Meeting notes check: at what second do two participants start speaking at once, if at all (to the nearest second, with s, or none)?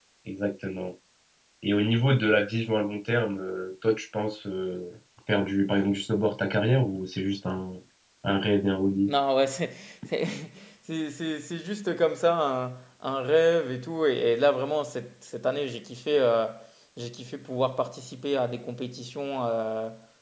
none